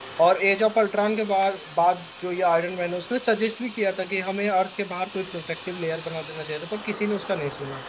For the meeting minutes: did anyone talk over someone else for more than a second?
No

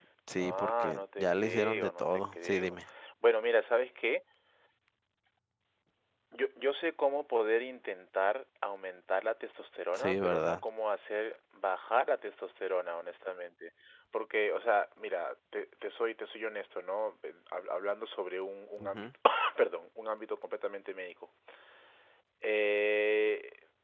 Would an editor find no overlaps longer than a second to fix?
No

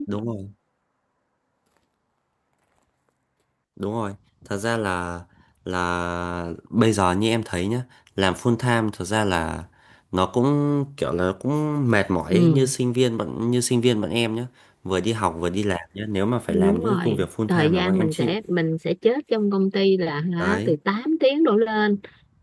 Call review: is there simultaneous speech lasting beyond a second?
Yes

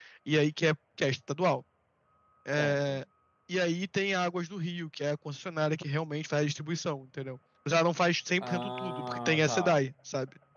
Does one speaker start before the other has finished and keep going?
Yes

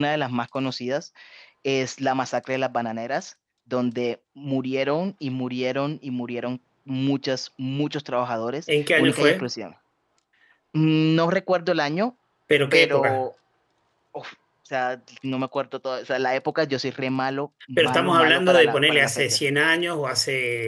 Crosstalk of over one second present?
Yes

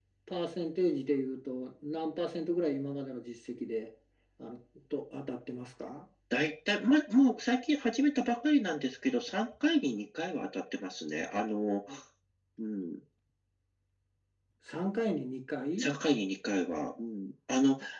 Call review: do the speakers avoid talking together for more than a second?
Yes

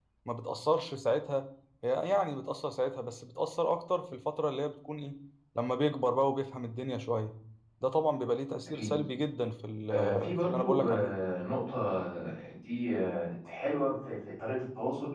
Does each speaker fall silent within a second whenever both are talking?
No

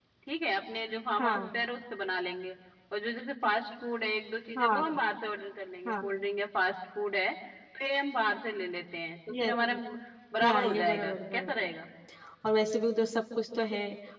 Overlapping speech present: Yes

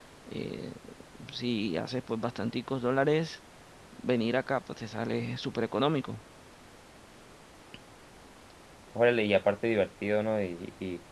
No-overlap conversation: Yes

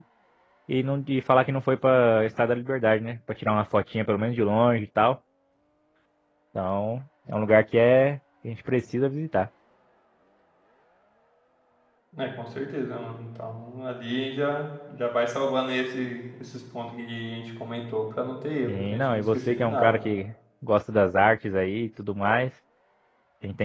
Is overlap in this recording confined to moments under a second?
No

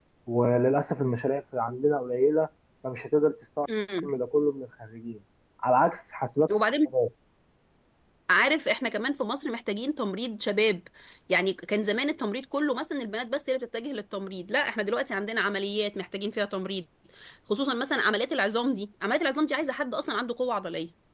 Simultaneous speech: No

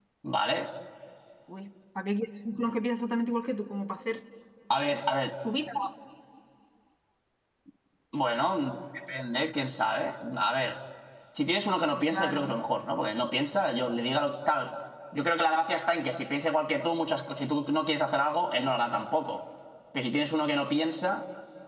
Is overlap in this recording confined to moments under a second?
Yes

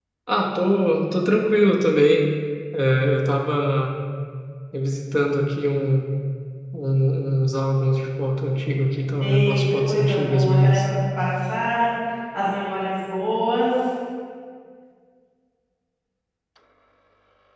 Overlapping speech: Yes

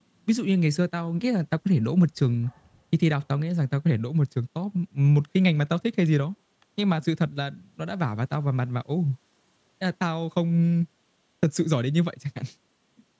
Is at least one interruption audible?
No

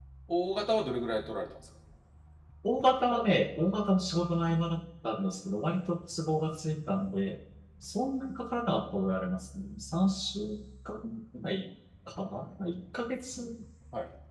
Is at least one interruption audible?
No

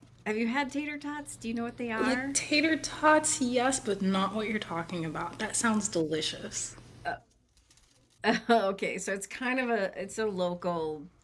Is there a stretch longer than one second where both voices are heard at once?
No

